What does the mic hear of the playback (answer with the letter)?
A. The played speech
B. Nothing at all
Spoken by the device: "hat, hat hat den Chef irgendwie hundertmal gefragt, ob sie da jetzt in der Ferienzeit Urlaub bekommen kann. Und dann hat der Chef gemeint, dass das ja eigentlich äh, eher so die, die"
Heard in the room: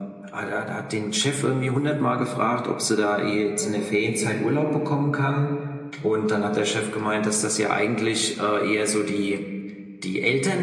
A